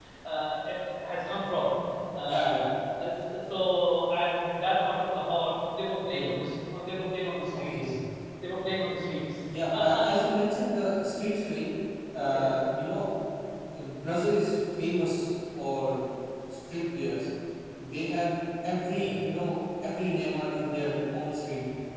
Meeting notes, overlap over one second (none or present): none